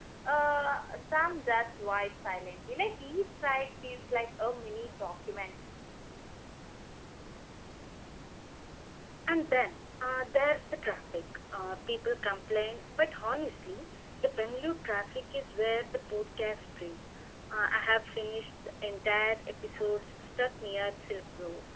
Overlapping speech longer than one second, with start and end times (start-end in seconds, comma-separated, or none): none